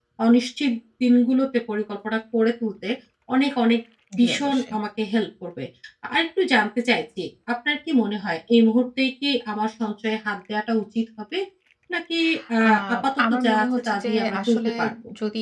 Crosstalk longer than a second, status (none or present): present